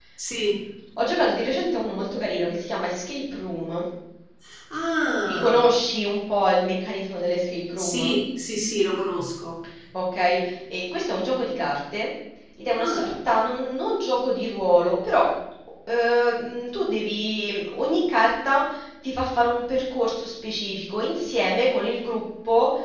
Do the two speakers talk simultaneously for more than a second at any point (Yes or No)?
No